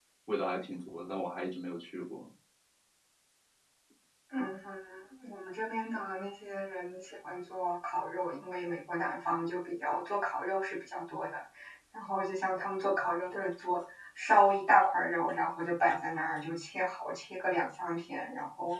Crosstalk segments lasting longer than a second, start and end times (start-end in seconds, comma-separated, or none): none